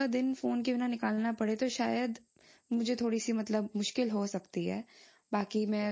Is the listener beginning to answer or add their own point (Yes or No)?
No